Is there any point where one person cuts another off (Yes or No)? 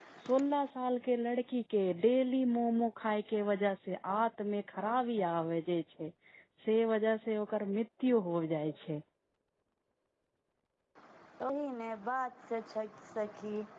No